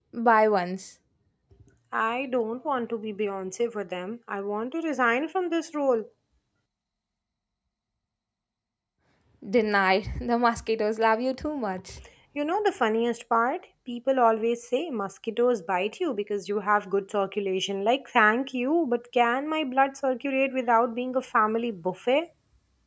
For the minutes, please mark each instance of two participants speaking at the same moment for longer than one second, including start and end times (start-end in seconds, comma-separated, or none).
none